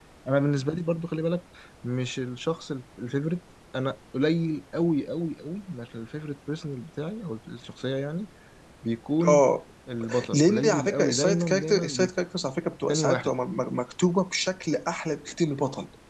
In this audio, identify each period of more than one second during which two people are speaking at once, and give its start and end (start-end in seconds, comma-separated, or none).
10.3-12.1